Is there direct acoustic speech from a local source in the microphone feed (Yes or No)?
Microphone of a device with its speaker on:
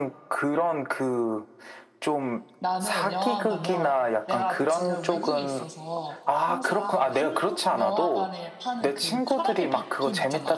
Yes